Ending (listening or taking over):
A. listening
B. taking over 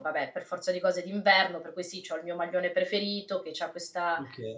A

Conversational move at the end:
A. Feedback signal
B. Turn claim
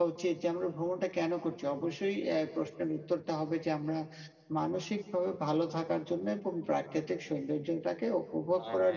A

